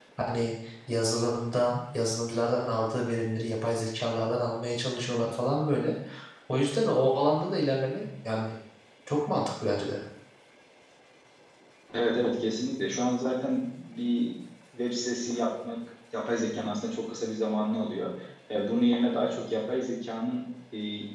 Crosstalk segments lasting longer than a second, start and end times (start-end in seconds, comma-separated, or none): none